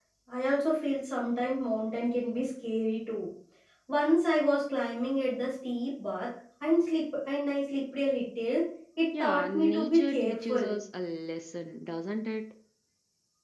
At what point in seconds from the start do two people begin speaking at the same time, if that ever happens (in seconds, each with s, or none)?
9.1 s